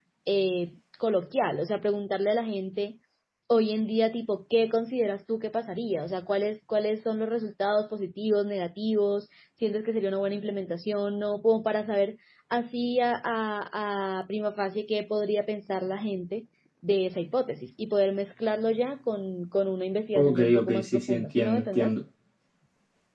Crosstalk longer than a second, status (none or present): present